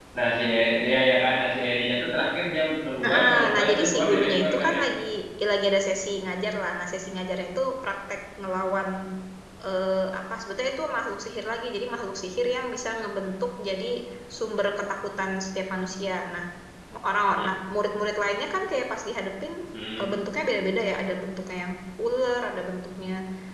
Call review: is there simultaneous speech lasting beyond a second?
Yes, from 3.0 s

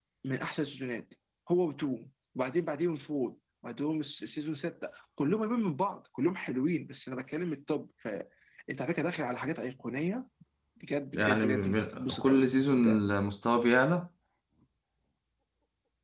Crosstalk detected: Yes, from 11.1 s

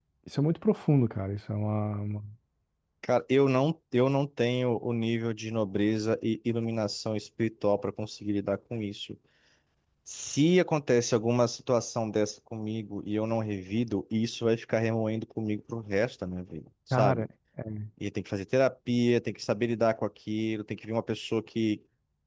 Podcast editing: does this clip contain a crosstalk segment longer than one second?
No

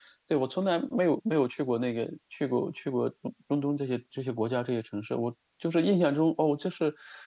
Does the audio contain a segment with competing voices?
No

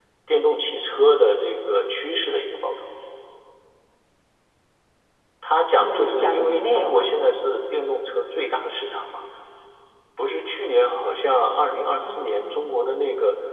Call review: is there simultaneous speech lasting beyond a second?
Yes, from 5.8 s

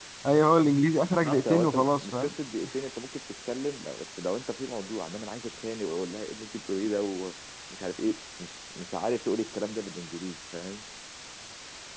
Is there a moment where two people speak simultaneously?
Yes, from 1.0 s

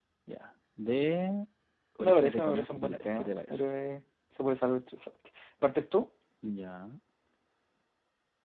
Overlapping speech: Yes, from 2.0 s

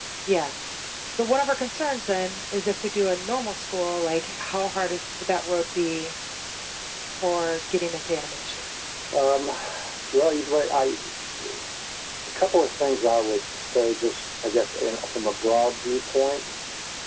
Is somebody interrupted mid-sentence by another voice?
No

